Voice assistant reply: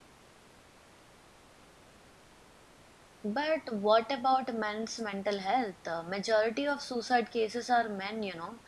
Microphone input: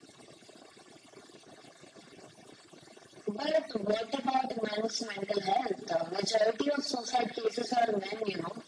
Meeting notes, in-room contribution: none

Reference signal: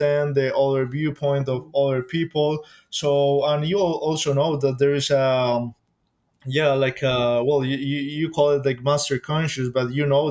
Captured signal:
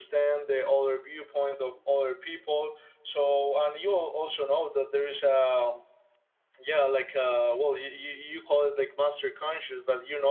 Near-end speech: none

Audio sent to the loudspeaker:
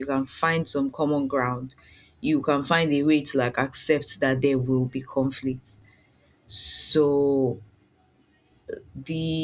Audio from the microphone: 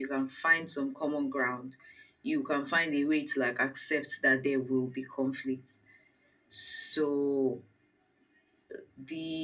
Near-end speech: none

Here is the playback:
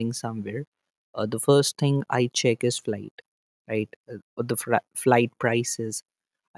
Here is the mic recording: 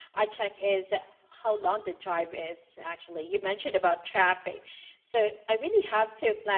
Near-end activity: present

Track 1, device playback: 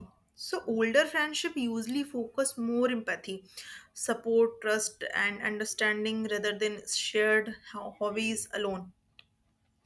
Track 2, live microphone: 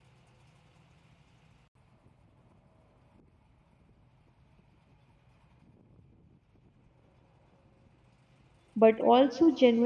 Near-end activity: present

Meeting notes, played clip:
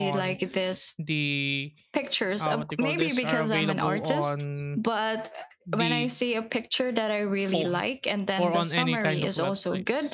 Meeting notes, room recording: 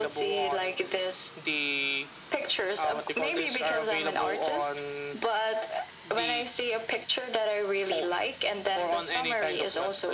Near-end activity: none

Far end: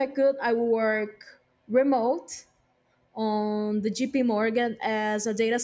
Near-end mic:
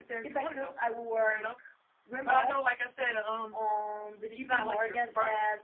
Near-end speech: present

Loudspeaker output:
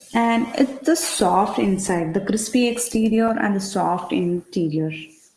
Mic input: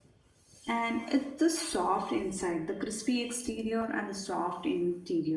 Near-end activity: none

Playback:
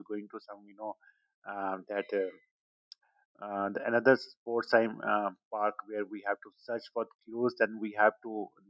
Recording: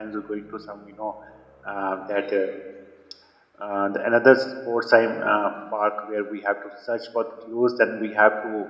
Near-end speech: none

